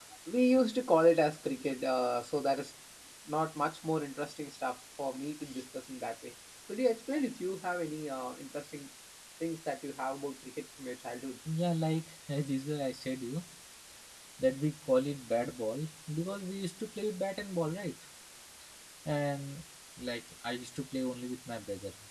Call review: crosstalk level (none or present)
none